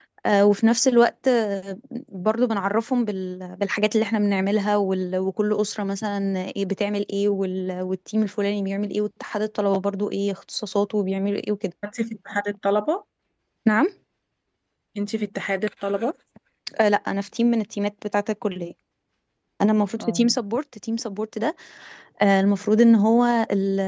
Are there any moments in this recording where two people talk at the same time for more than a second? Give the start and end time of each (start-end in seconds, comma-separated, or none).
none